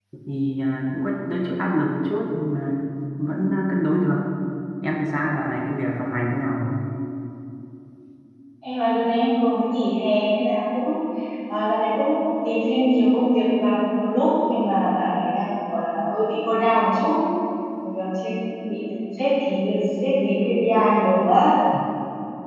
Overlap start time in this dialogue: none

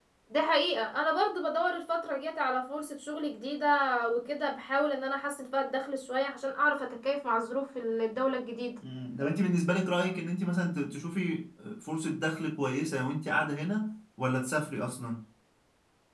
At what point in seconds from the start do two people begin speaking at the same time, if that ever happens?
none

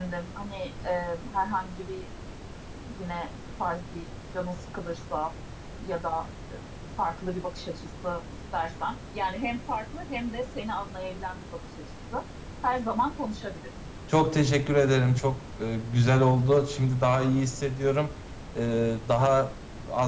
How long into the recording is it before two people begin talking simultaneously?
none

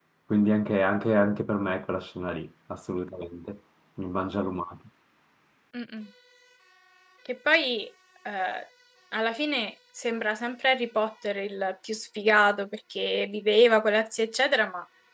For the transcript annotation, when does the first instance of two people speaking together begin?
none

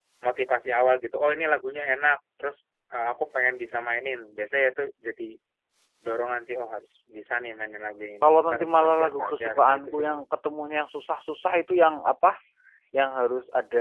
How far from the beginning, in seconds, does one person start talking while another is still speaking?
8 s

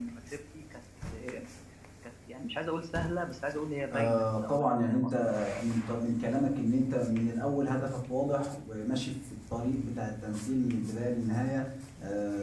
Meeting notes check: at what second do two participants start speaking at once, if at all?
4 s

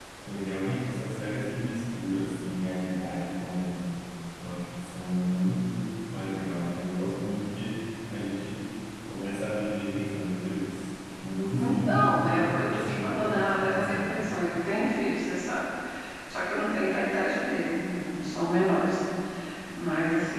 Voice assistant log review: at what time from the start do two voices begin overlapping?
12 s

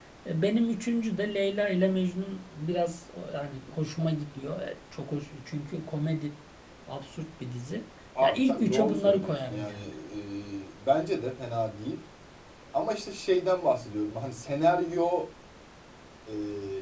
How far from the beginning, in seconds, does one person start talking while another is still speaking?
8 s

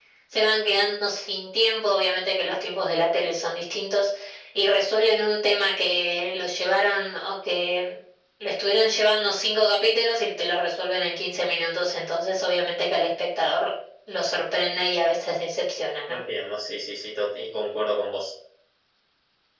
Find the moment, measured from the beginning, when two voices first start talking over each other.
none

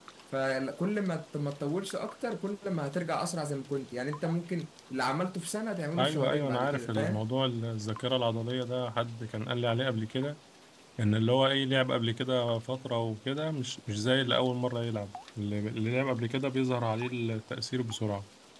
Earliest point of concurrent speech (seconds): 6 s

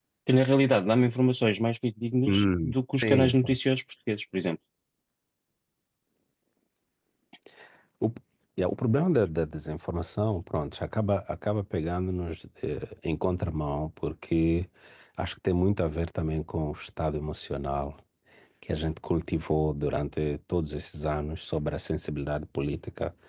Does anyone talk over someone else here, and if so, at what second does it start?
2 s

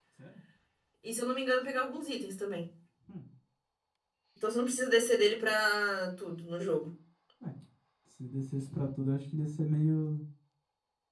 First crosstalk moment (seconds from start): none

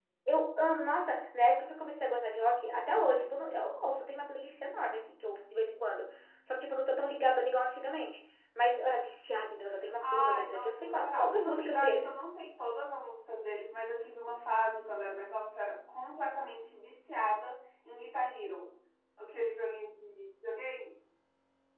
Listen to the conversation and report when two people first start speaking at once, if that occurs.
10 s

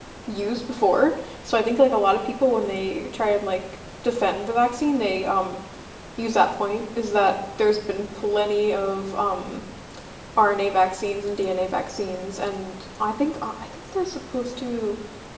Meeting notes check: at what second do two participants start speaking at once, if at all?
none

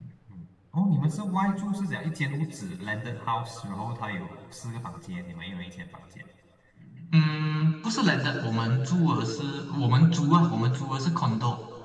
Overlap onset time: none

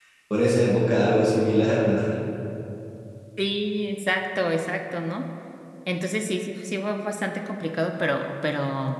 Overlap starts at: none

